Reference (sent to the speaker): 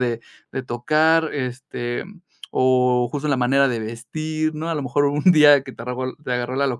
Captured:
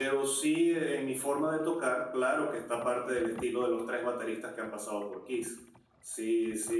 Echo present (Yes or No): No